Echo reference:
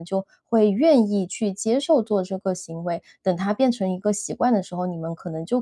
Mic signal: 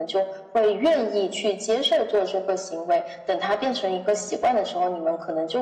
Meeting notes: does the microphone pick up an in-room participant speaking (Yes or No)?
No